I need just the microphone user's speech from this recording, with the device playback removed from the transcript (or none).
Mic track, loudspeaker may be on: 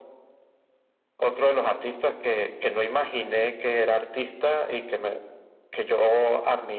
none